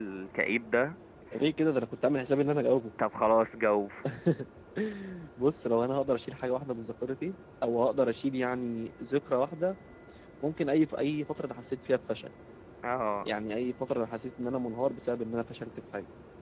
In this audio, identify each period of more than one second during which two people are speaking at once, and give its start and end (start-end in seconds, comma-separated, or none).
none